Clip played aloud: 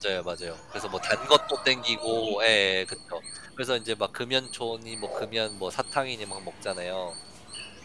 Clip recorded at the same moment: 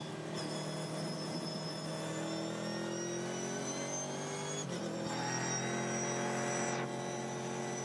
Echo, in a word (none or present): none